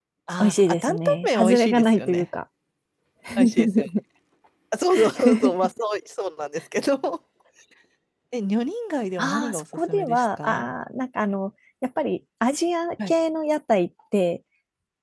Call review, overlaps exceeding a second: present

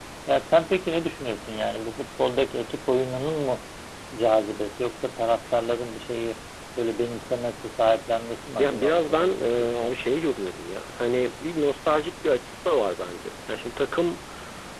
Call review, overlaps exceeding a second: present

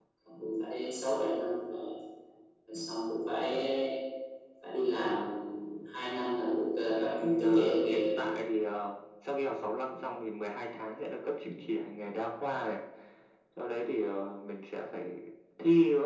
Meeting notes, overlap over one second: present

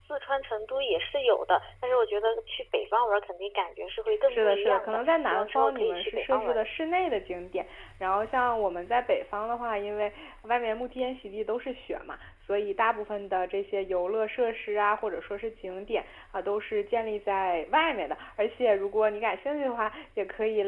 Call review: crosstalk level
present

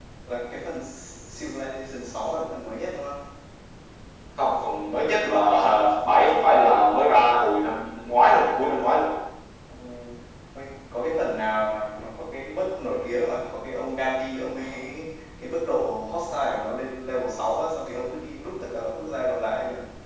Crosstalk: none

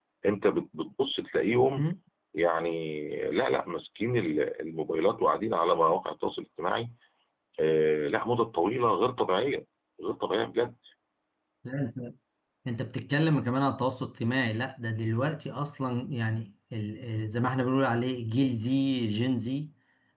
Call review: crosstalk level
none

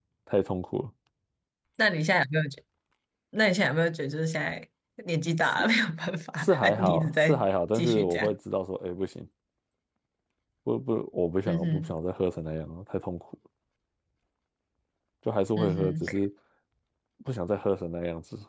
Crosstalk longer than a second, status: present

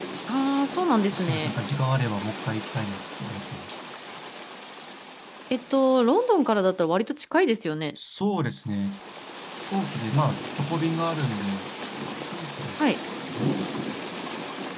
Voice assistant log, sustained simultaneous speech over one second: none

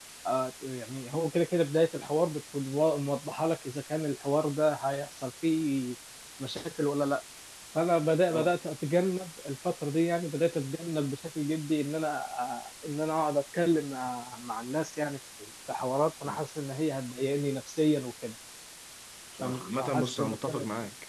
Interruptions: present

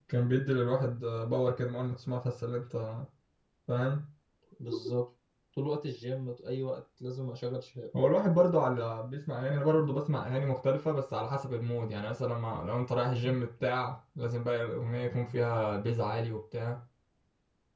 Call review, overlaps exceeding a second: none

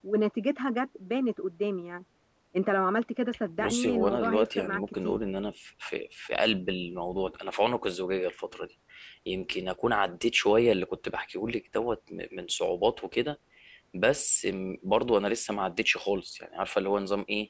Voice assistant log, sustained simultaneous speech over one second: present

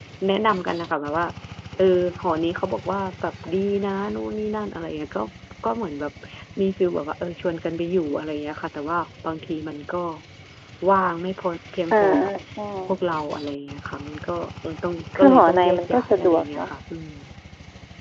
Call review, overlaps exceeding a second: present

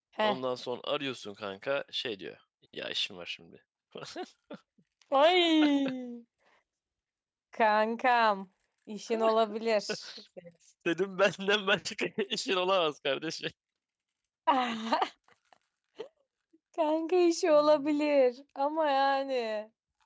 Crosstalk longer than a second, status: none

